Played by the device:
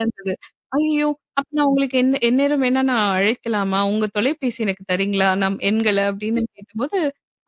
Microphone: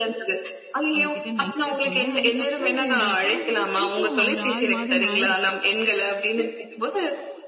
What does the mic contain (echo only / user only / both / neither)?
both